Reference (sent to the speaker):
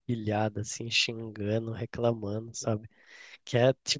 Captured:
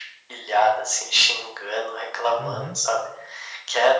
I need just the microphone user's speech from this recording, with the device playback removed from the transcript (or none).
Uhum.